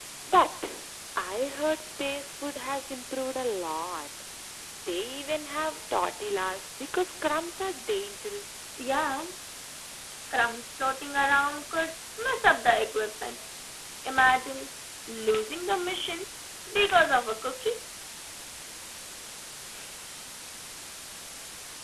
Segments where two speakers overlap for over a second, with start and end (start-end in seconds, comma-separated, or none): none